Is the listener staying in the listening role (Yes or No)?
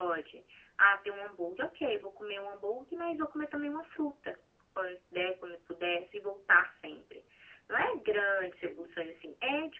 Yes